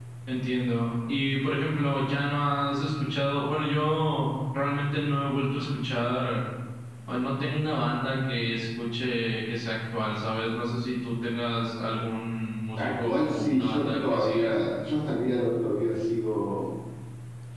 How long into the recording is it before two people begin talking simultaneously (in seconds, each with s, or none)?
12.8 s